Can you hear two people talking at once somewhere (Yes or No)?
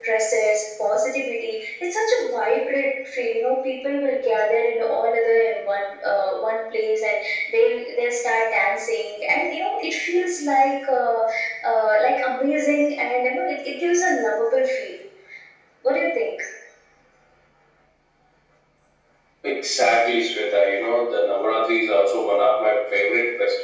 No